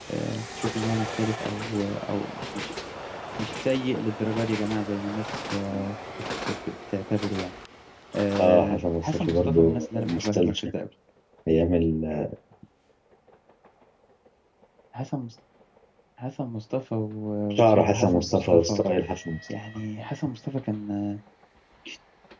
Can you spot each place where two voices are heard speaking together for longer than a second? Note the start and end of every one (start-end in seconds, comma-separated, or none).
8.4-10.7, 17.5-18.8